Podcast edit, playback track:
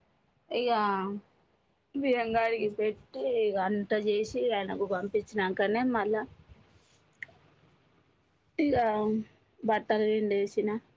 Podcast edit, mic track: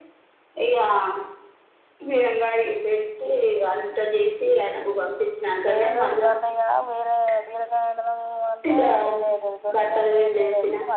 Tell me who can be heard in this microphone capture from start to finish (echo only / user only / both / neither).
both